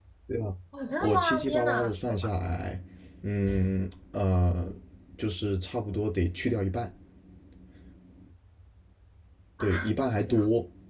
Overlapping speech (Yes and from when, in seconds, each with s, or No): Yes, from 1.0 s